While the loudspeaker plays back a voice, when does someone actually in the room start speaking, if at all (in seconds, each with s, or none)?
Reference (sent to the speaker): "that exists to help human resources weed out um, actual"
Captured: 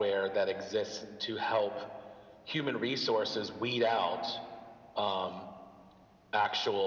none